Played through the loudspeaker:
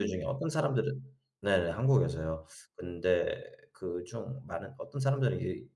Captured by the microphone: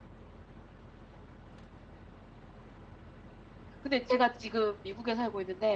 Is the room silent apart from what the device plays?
No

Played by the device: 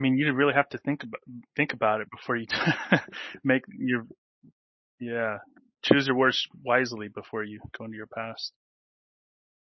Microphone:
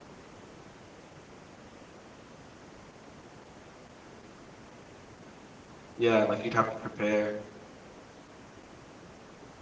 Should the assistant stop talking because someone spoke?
Yes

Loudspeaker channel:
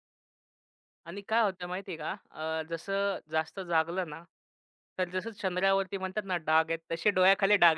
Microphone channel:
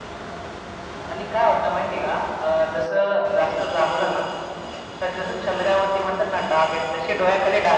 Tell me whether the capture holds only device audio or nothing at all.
Yes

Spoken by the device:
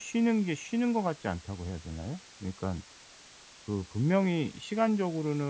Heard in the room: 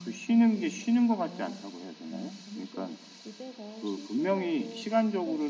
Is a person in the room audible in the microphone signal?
Yes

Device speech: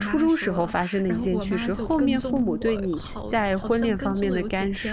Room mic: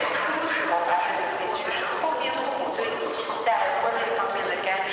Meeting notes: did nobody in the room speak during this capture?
Yes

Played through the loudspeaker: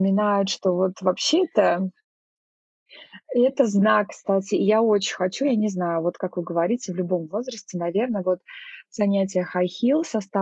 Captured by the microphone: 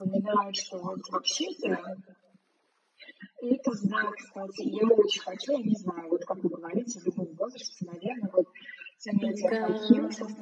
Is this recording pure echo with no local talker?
No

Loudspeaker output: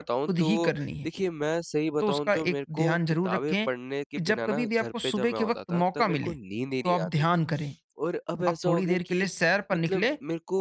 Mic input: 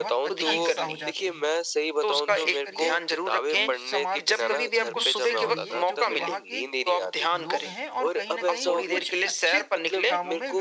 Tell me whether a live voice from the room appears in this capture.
Yes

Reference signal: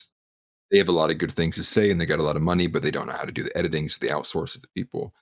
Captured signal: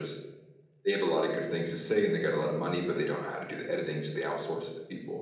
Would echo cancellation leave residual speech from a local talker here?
No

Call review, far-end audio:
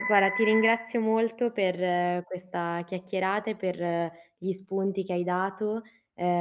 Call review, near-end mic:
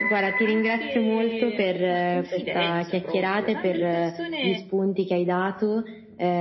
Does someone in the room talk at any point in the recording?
Yes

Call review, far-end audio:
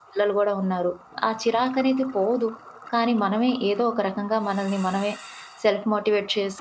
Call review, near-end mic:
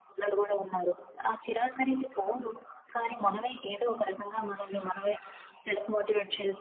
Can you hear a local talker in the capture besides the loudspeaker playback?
No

